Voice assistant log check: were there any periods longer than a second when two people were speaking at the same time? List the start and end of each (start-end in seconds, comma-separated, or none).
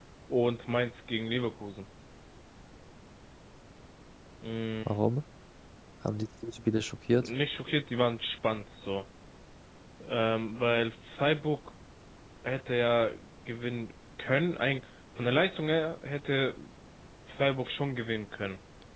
none